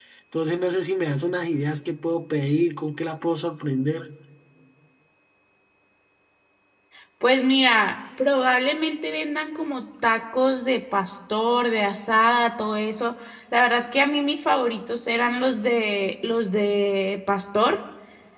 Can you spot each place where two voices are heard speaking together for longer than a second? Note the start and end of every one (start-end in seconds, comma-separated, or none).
none